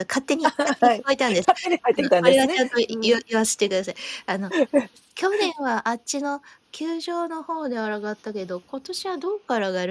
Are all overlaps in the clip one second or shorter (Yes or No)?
No